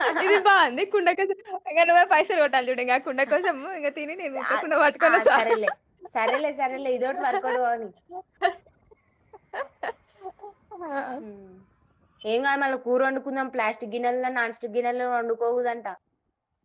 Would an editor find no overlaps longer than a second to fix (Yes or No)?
Yes